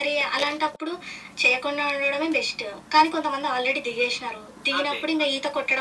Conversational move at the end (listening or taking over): listening